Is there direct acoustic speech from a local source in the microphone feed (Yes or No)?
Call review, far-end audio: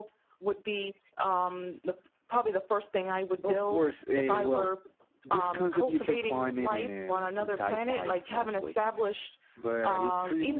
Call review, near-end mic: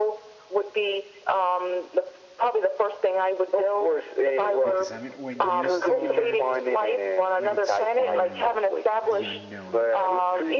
Yes